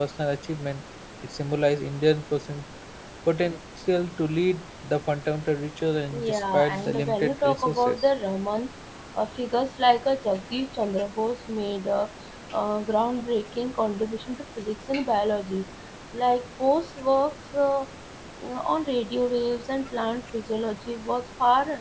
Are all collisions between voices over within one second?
No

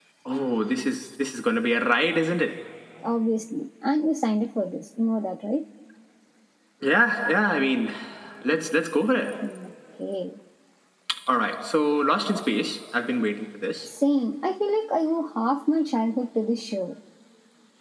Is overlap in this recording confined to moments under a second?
Yes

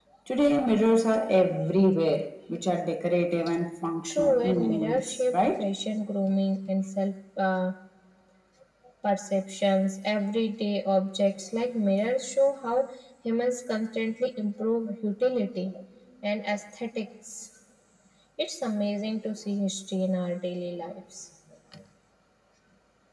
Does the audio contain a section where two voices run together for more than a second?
Yes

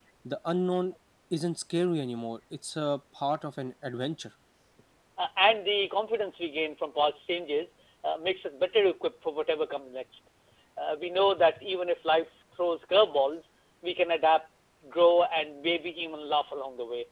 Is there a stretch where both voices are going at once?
No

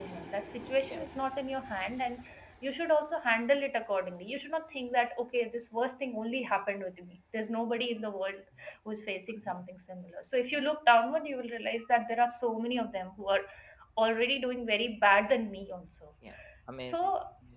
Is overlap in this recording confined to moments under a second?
Yes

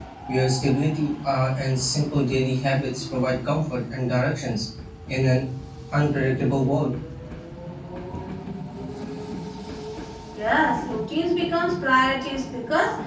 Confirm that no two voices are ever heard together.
Yes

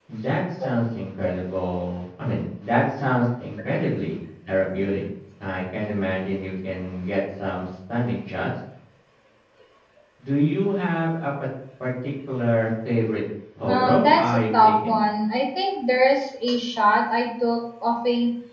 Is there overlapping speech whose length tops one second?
Yes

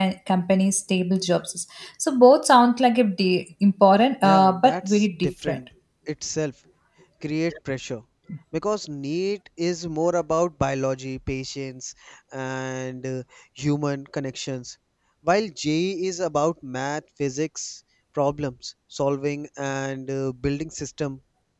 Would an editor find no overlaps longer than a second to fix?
No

